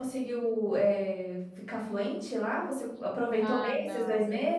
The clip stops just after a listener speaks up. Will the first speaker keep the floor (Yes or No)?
No